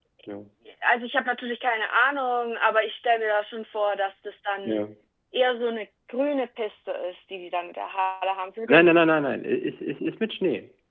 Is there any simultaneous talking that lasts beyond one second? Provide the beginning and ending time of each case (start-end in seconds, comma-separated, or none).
none